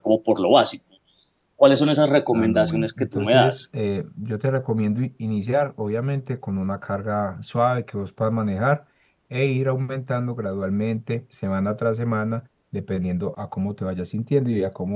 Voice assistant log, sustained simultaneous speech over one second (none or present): present